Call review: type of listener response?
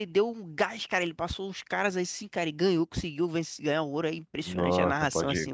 taking over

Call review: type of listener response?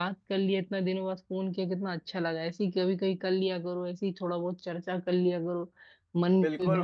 taking over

